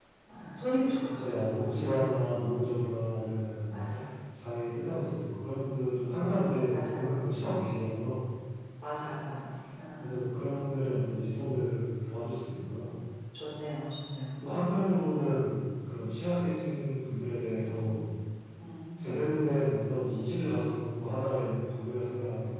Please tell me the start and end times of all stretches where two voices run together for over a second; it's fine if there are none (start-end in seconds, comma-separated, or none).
none